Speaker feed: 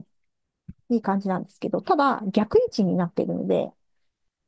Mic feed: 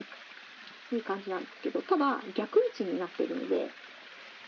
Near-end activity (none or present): none